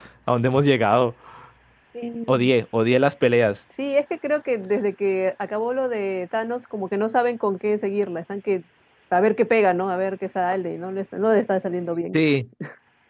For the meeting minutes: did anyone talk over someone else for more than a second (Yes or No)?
No